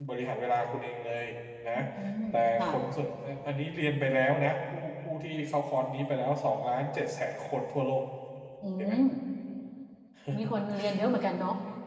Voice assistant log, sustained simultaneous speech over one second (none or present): none